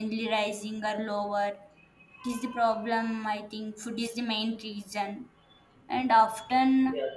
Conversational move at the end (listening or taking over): listening